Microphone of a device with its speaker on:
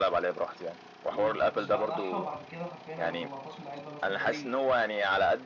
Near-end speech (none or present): present